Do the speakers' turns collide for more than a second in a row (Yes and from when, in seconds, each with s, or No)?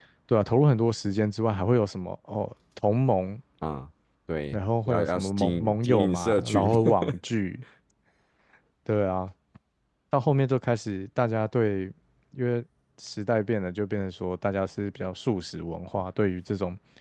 Yes, from 4.5 s